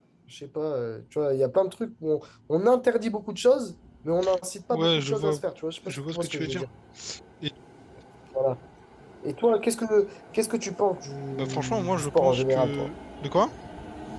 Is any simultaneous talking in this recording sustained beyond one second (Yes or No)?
Yes